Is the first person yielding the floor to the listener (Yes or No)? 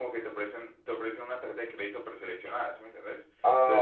No